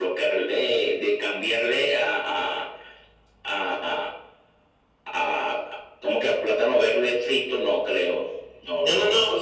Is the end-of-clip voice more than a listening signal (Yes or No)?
Yes